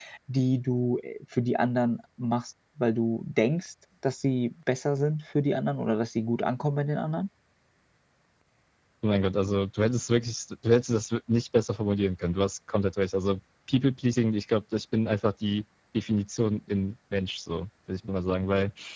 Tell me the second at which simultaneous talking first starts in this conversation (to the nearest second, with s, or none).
none